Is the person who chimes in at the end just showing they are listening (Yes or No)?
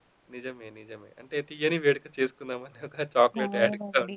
No